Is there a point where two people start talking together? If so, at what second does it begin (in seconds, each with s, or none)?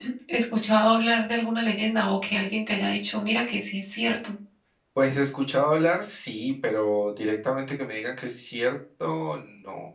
none